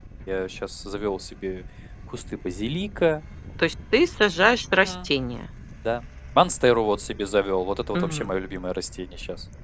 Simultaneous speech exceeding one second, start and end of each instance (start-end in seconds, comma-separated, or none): none